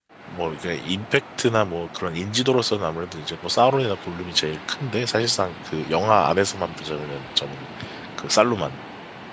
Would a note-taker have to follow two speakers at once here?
No

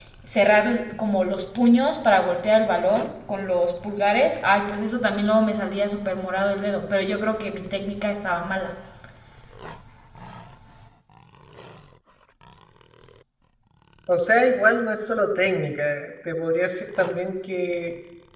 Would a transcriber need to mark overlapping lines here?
No

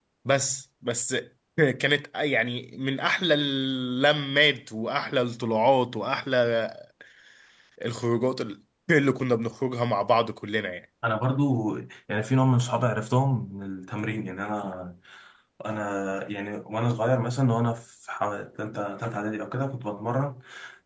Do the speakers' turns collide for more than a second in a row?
No

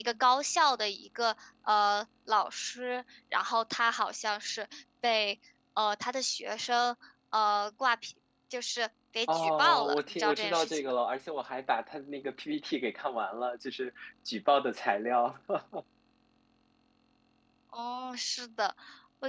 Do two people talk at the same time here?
Yes, from 9.3 s

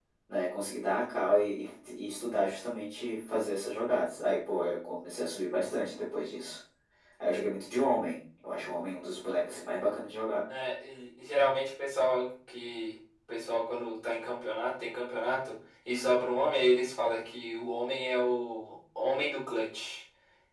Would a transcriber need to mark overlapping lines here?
No

